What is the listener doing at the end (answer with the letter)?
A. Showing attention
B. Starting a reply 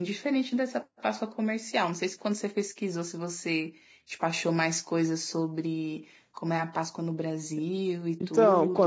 B